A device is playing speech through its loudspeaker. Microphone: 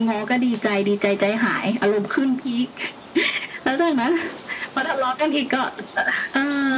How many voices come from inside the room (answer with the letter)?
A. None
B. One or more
A